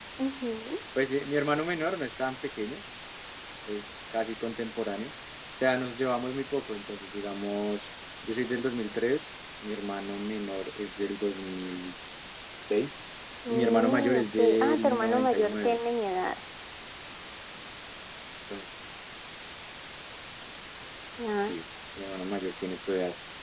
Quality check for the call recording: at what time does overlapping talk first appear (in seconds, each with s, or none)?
13.5 s